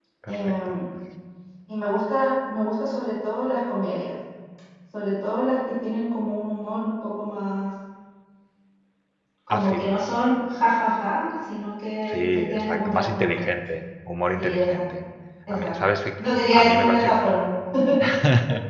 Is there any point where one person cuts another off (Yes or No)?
Yes